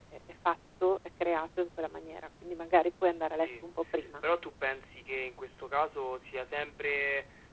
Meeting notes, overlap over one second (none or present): none